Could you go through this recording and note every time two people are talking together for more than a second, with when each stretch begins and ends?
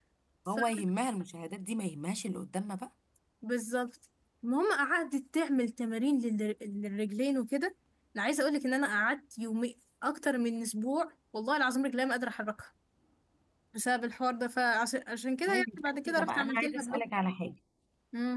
15.5-17.0

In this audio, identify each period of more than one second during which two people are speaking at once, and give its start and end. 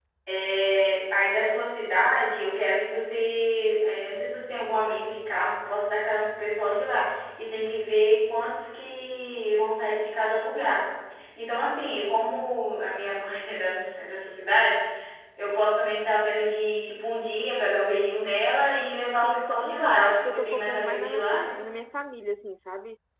19.2-21.6

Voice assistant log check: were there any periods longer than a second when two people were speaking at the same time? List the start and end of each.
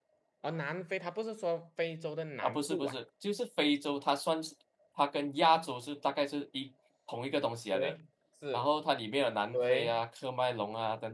none

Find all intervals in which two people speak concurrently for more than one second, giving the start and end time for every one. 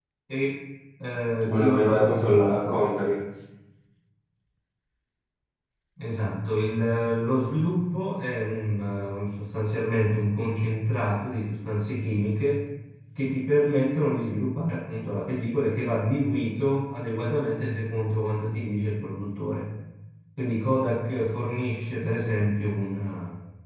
1.5-2.8

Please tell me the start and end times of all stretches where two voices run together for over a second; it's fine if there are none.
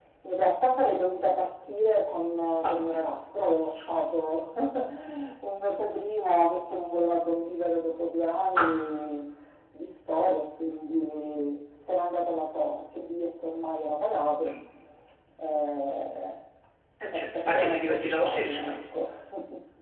17.1-18.8

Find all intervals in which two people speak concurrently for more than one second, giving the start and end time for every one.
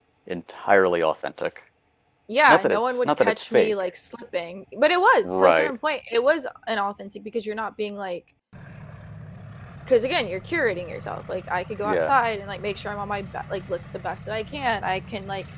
2.5-3.7

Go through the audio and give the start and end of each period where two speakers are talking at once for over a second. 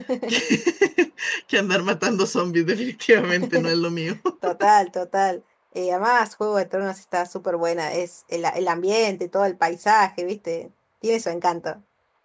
none

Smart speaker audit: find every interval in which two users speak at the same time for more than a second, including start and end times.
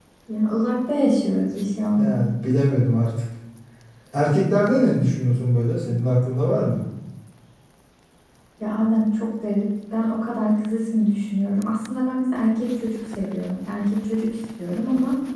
none

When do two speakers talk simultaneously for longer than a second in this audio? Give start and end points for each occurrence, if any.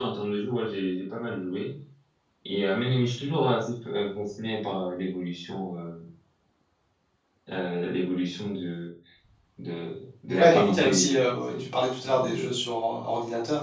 10.4-11.6

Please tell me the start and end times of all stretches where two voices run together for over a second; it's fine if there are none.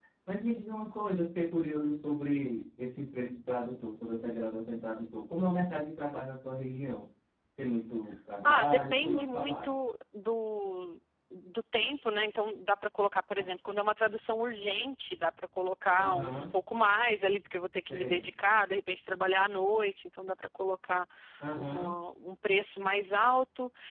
8.4-9.8

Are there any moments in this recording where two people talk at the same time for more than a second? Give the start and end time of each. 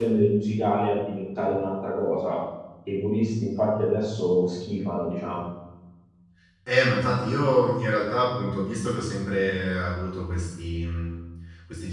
none

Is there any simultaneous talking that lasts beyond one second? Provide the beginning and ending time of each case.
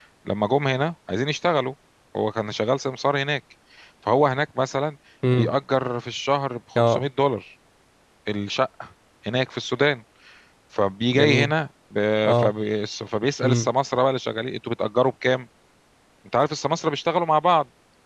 none

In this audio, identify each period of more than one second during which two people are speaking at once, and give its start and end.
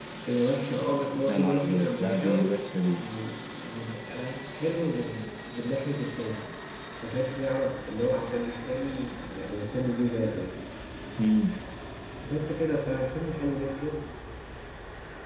1.3-2.5

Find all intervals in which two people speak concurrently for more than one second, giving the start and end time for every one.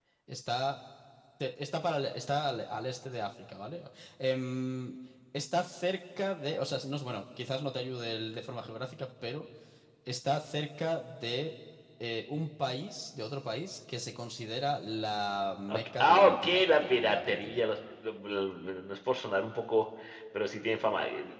15.7-17.6

